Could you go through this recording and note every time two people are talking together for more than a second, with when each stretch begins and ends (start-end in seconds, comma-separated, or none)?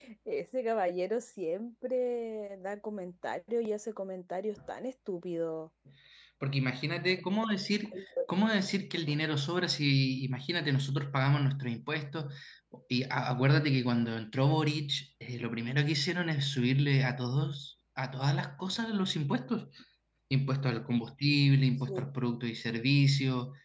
none